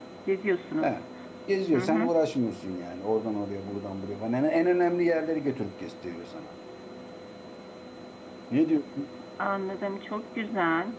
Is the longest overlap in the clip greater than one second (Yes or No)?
No